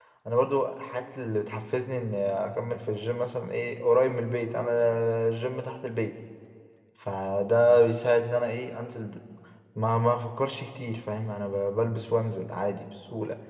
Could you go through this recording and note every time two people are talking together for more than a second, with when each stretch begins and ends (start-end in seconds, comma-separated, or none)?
none